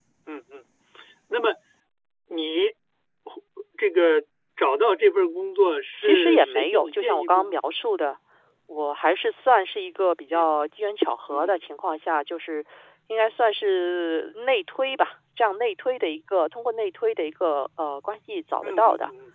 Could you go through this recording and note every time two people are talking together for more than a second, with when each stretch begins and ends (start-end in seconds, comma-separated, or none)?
6.0-7.5